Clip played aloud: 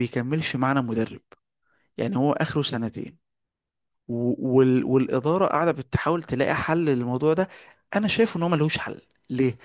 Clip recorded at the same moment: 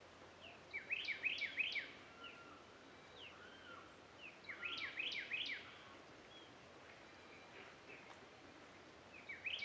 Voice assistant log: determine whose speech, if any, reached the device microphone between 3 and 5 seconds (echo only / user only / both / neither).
neither